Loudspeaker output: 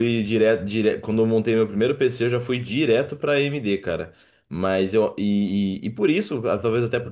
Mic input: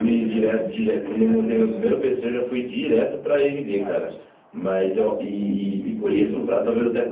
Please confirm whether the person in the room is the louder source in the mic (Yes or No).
No